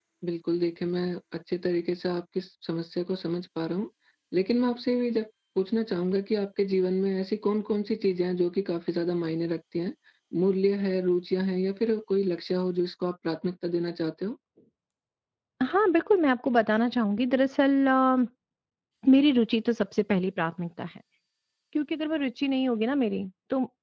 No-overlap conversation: Yes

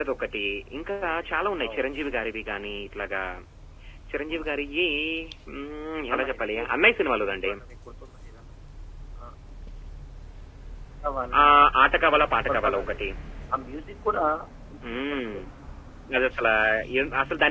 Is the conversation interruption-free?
No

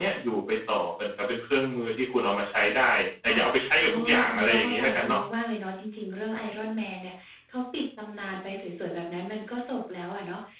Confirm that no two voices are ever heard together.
No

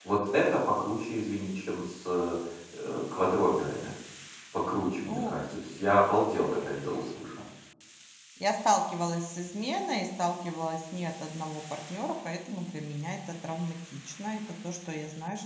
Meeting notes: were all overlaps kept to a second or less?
Yes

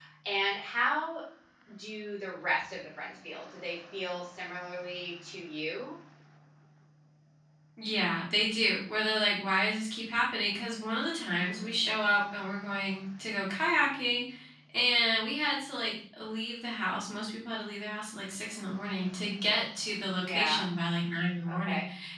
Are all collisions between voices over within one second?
Yes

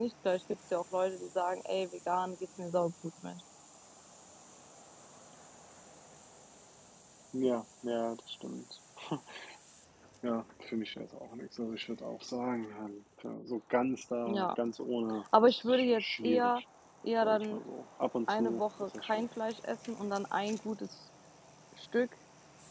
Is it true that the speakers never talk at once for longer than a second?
No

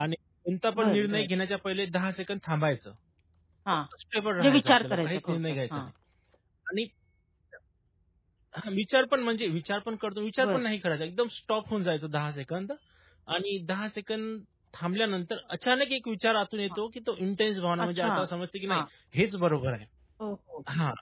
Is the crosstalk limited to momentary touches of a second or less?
No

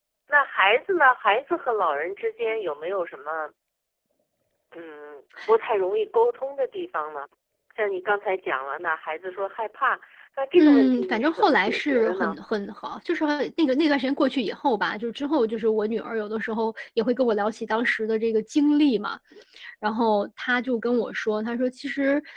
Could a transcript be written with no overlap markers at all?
No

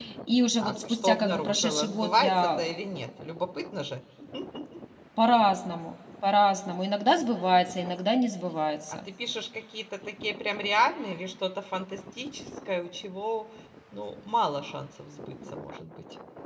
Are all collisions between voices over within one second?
No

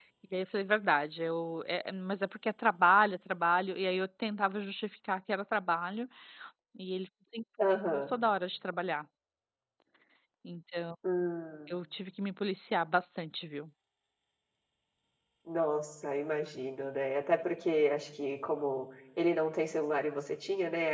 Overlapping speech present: No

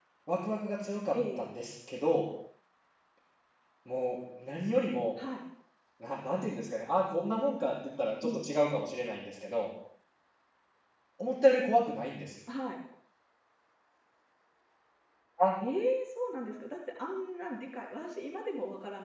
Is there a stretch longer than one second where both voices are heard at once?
No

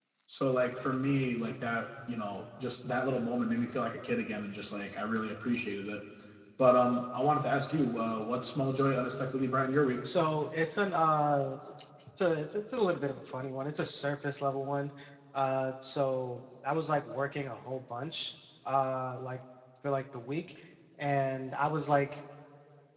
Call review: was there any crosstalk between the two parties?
No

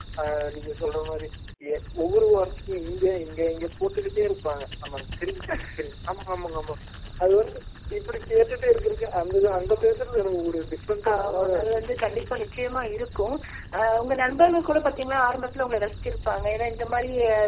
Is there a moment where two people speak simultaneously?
Yes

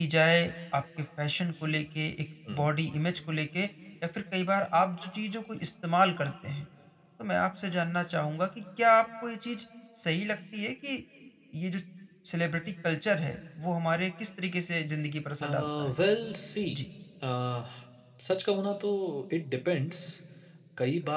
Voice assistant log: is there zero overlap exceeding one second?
Yes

